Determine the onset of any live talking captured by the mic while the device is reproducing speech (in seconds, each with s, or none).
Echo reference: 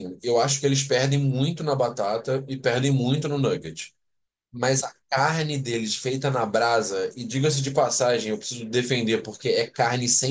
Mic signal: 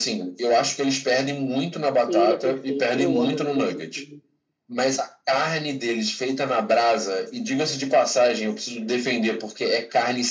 2.0 s